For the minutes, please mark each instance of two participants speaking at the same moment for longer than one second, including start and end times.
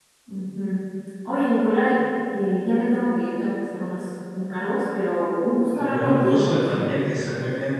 5.9-7.1

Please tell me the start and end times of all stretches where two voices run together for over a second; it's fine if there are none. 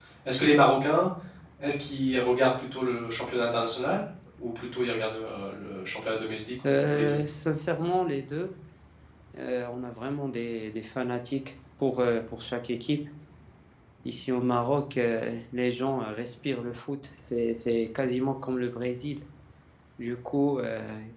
none

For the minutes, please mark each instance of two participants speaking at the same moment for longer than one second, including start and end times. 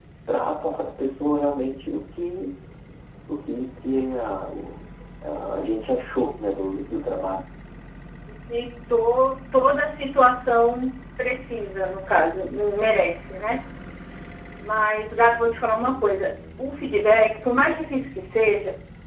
none

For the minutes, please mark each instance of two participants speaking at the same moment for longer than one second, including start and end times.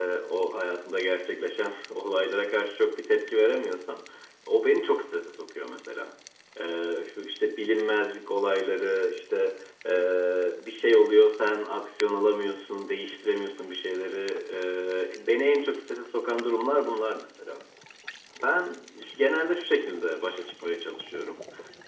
none

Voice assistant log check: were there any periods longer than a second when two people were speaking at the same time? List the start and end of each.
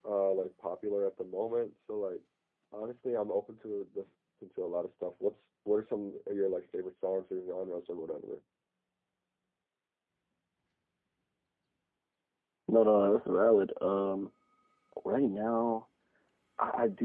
none

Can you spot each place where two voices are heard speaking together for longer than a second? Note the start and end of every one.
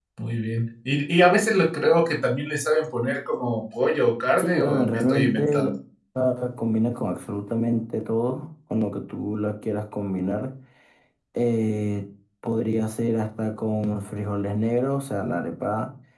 4.4-5.7

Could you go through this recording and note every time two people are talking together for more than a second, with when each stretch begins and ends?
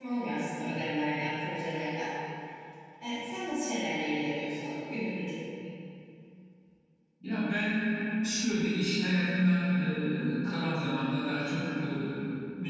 none

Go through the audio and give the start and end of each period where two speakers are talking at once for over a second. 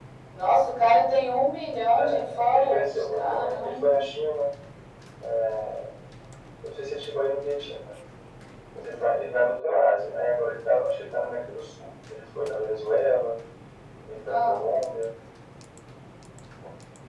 2.0-3.8

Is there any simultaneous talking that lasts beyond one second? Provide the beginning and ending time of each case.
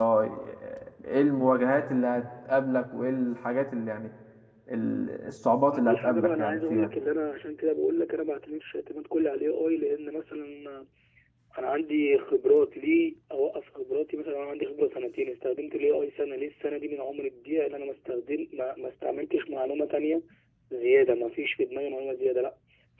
5.7-6.9

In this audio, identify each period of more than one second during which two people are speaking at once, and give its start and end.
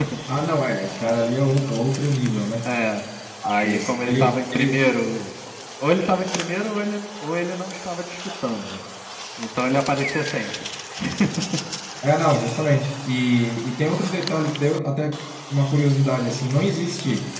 3.6-4.8

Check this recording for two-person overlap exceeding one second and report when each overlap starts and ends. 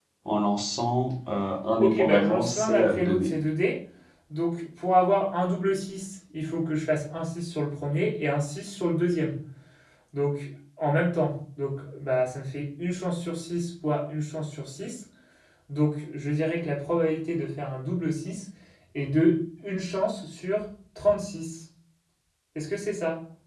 1.8-3.4

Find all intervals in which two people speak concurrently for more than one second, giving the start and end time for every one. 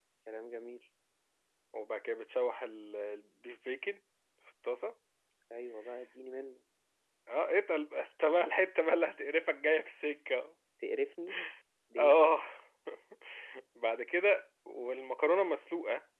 none

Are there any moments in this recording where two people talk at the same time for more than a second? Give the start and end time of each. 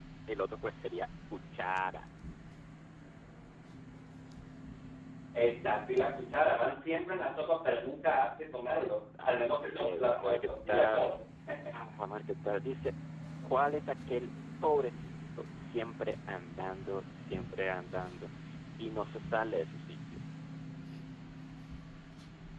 9.2-11.1

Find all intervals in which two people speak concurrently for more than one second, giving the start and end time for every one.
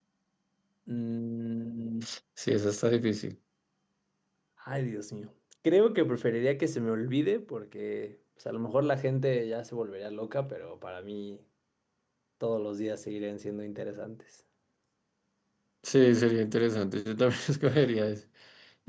none

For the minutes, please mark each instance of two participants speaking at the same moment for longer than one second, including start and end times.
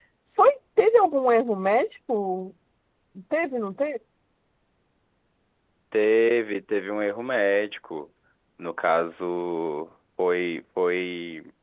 none

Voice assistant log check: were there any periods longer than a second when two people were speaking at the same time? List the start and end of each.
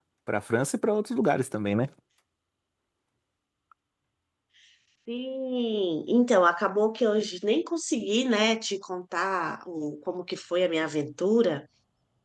none

